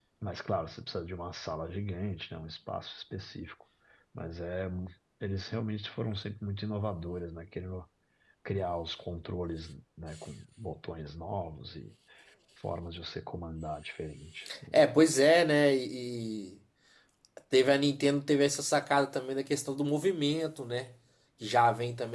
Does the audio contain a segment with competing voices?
No

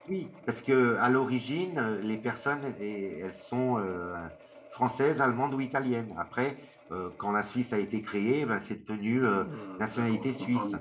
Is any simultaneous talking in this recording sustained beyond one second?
Yes, from 9.1 s

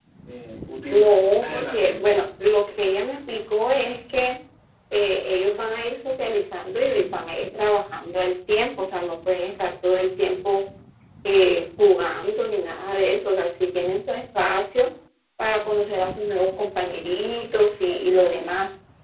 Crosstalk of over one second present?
Yes, from 0.9 s

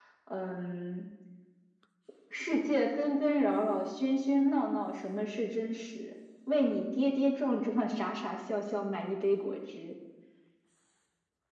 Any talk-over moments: No

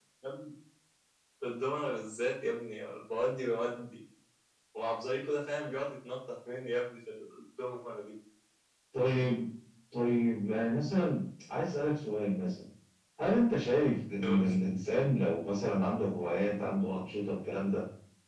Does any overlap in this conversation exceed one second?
No

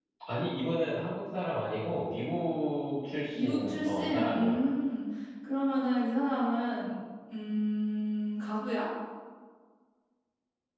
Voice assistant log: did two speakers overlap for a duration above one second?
Yes, from 3.3 s

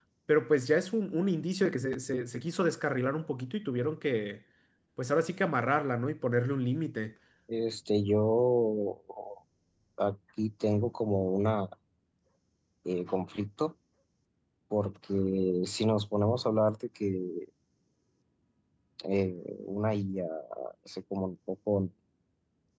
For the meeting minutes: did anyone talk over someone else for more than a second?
No

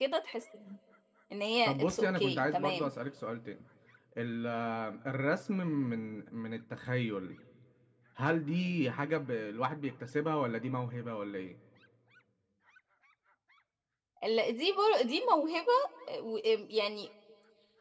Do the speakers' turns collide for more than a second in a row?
Yes, from 1.6 s

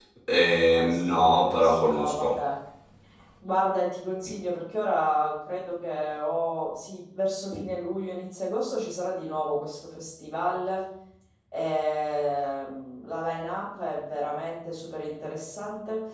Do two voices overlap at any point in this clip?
Yes, from 0.7 s

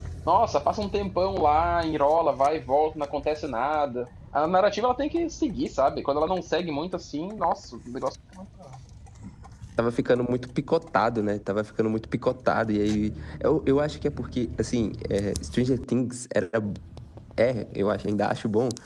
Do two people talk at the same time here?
No

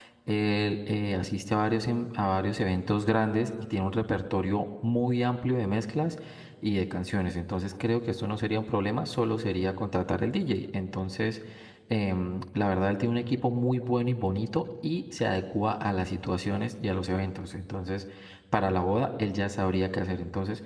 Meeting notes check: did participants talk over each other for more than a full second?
No

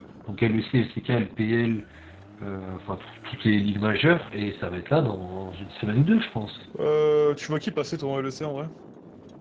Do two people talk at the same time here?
No

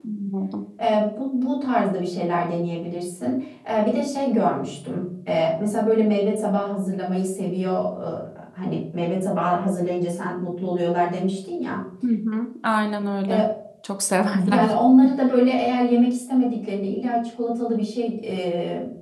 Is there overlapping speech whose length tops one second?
No

